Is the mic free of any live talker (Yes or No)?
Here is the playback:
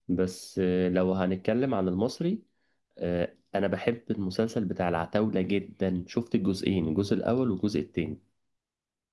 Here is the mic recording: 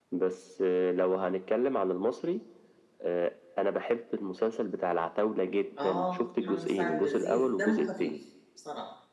No